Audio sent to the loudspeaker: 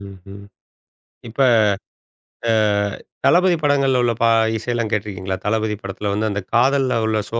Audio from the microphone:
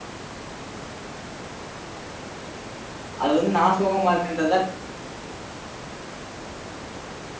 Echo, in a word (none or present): none